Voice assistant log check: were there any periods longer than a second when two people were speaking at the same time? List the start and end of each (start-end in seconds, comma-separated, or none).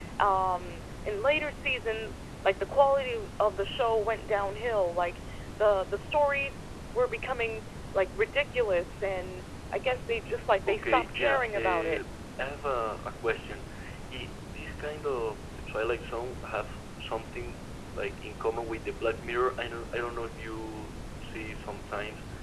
10.7-12.0